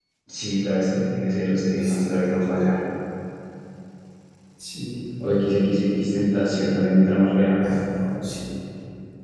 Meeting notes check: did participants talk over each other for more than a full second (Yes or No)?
No